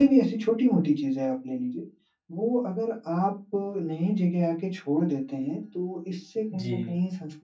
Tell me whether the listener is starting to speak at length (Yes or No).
No